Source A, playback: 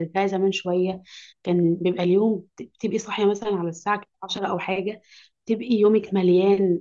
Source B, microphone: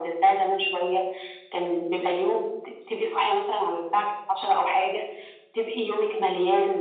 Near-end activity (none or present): none